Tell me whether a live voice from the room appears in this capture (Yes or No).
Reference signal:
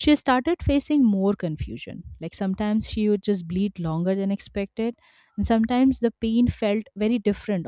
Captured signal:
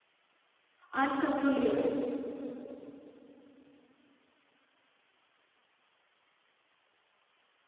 Yes